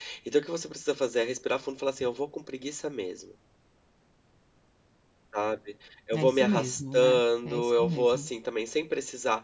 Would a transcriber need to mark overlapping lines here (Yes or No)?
Yes